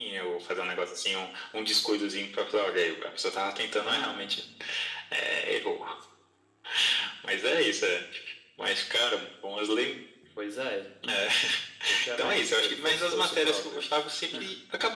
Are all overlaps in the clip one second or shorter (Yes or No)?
No